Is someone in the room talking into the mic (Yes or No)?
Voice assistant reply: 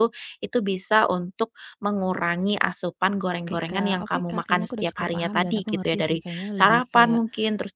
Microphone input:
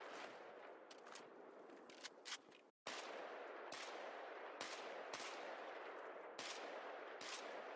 No